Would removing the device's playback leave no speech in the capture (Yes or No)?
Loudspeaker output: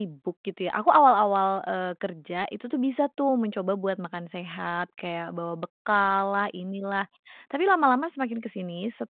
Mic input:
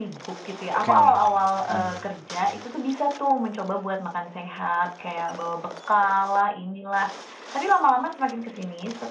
No